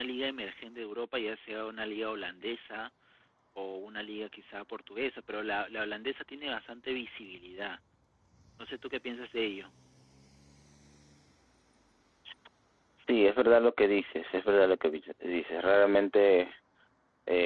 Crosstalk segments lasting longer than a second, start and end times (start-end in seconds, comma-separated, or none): none